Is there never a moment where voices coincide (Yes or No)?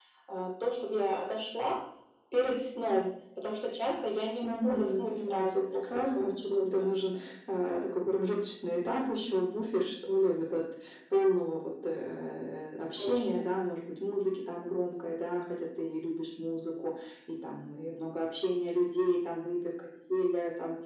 No